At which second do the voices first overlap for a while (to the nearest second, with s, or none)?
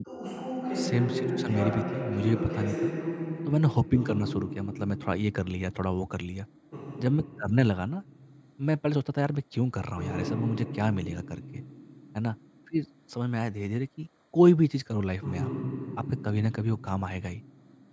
1 s